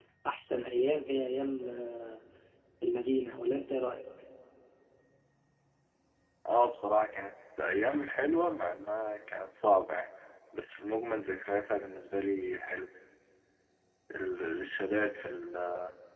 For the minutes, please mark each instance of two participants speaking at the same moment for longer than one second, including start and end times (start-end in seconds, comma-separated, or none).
none